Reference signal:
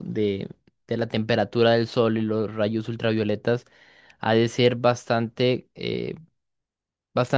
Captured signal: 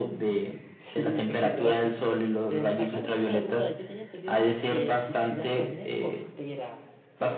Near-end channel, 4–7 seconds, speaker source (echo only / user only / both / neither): both